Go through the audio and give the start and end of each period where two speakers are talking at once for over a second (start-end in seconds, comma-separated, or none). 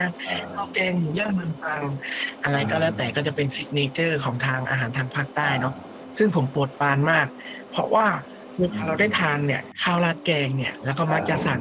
none